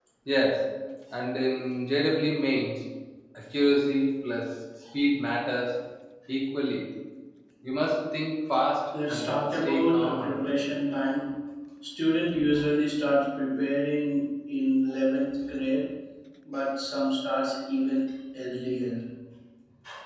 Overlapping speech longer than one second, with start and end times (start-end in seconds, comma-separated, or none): 9.1-10.5